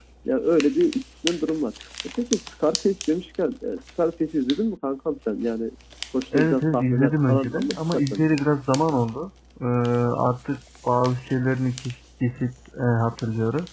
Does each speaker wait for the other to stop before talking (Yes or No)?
No